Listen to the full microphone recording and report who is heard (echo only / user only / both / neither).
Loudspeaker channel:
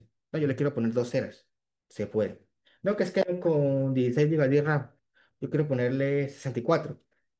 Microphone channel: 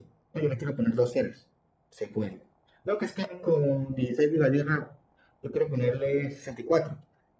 echo only